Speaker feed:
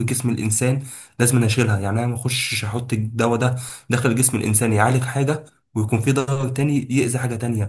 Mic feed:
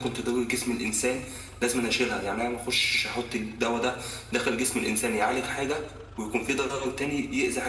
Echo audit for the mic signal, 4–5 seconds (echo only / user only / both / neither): echo only